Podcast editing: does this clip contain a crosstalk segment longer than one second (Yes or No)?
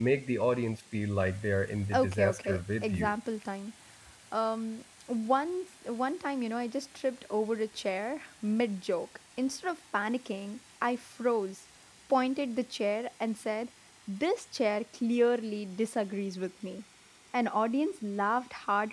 Yes